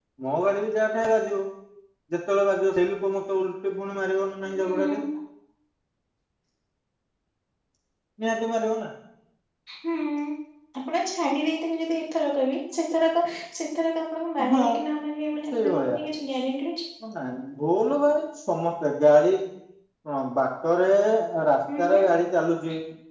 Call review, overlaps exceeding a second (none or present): none